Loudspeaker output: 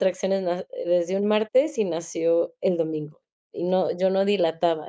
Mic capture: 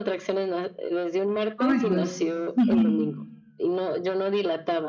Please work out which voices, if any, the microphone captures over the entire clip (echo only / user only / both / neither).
both